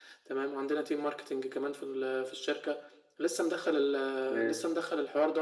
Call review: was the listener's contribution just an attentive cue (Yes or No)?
Yes